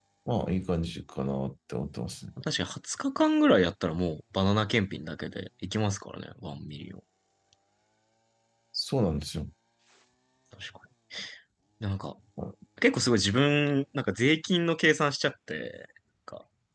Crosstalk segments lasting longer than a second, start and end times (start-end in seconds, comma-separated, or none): none